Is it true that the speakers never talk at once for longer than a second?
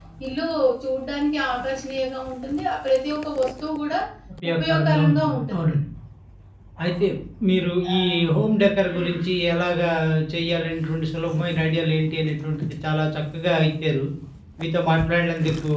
No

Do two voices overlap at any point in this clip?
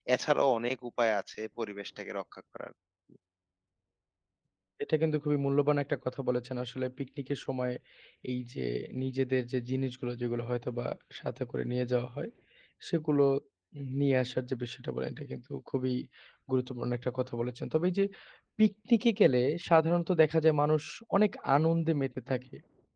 No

